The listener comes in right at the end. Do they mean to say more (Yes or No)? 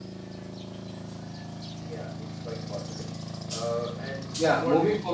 Yes